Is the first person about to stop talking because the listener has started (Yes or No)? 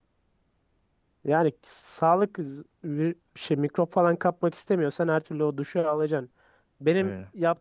No